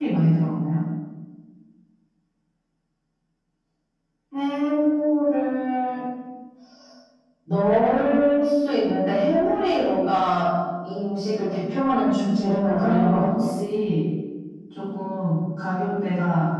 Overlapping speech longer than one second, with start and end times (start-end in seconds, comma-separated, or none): 12.0-13.2